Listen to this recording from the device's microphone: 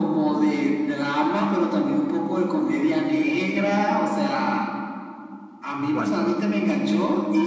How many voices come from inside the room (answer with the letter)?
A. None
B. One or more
B